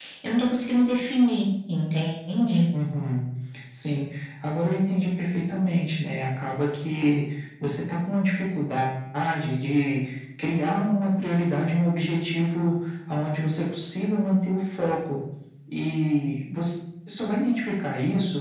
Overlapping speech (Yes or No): No